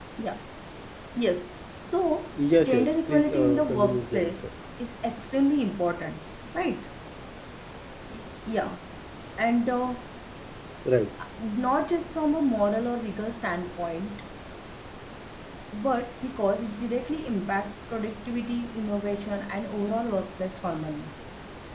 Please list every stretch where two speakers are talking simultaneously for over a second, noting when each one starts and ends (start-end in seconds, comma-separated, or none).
2.7-4.3